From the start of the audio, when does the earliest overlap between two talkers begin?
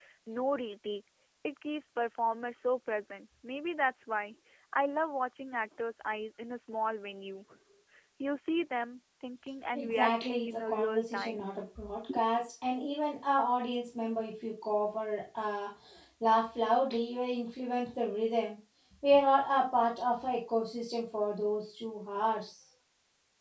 9.7 s

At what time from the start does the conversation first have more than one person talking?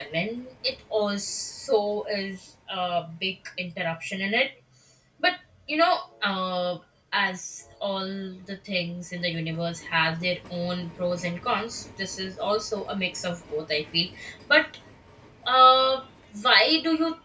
none

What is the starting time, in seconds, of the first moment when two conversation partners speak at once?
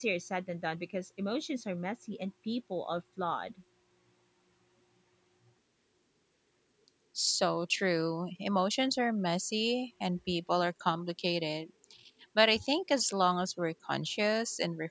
none

